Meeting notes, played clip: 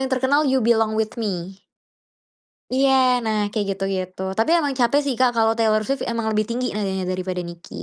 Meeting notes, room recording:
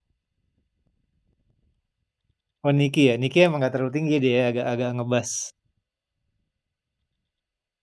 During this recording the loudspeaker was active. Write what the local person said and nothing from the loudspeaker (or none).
Oh, Niki ya, Niki emang nggak terlalu tinggi dia agak-agak ngebas.